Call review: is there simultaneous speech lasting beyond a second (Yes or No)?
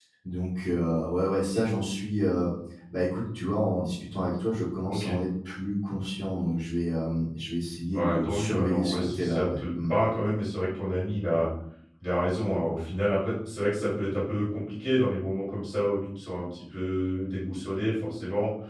Yes